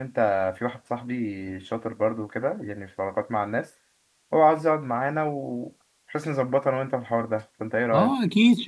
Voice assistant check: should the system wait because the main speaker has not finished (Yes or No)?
No